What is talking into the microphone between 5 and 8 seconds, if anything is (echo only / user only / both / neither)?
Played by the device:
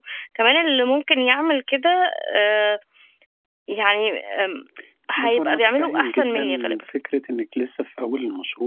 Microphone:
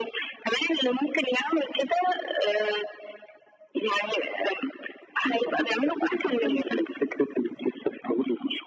echo only